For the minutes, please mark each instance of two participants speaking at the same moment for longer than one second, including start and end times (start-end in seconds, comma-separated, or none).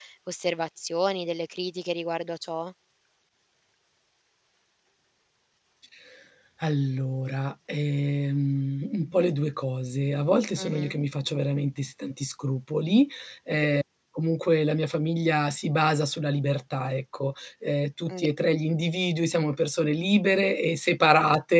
none